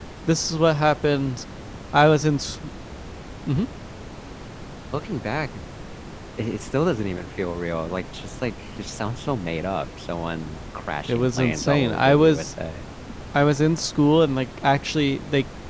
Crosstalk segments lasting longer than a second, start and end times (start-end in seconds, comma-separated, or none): 11.1-12.5